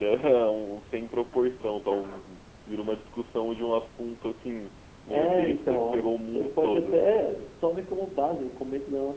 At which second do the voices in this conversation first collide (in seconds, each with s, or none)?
5.1 s